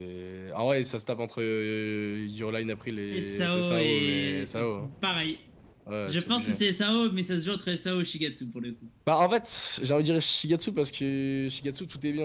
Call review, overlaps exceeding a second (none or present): present